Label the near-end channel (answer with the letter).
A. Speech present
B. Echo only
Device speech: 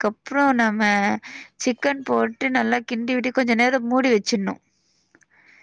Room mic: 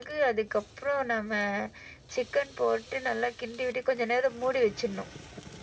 B